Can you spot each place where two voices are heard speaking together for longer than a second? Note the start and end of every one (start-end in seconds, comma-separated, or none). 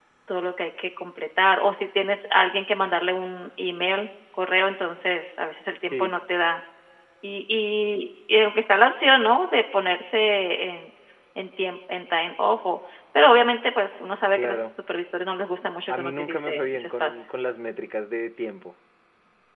15.9-17.3